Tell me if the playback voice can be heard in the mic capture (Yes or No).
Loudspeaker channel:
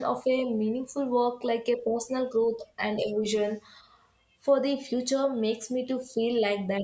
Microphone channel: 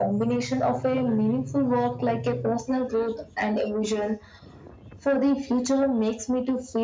Yes